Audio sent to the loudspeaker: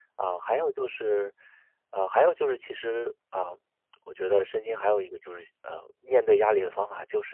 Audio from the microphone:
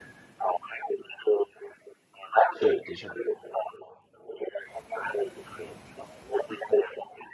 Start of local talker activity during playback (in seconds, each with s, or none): 2.5 s